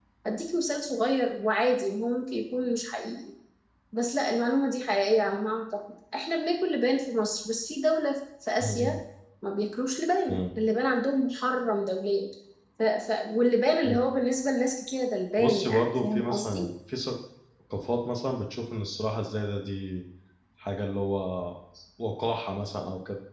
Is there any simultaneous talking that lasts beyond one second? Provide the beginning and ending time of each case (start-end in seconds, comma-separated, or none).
15.4-16.6